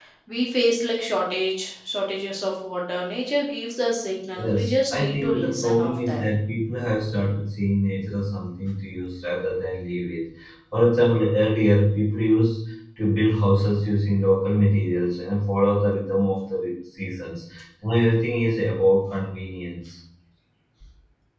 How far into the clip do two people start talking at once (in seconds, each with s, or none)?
4.4 s